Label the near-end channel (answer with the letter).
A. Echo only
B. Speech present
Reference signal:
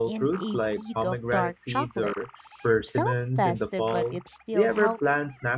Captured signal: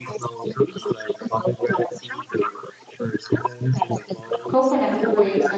B